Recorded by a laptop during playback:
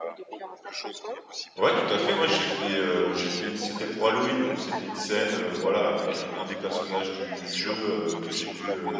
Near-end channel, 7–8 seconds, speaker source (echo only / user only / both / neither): both